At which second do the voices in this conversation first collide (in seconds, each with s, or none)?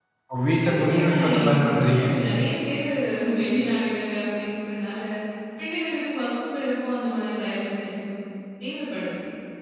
0.6 s